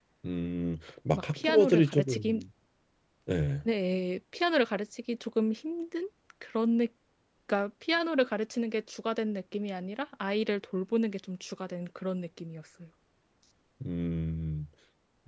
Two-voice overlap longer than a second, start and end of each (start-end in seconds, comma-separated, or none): 1.1-2.4